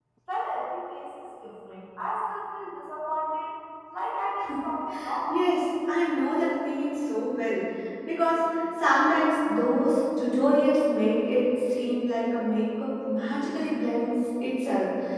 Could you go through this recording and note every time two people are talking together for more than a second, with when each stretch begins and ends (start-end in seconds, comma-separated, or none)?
none